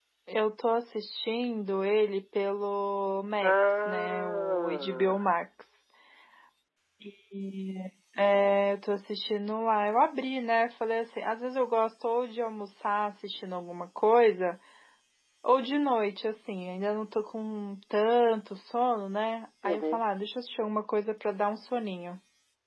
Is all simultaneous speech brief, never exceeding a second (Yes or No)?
No